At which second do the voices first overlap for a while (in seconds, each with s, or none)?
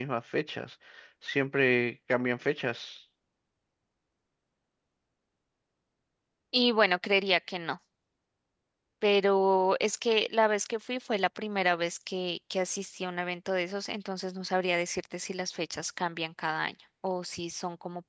none